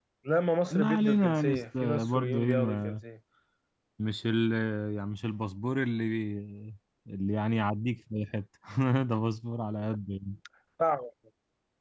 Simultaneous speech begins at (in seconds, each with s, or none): 0.7 s